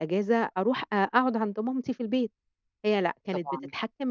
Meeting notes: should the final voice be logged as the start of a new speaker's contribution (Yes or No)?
No